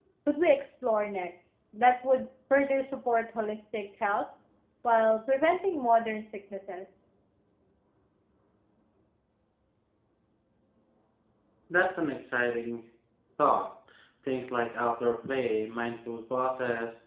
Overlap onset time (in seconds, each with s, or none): none